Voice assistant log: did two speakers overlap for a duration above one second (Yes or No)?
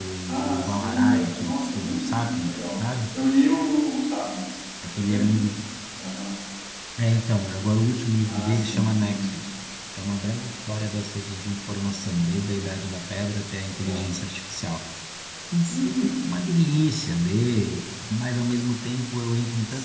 Yes